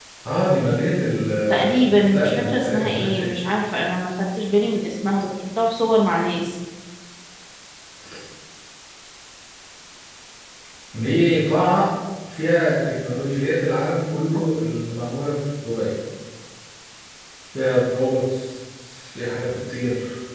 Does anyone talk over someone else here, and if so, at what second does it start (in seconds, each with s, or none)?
1.5 s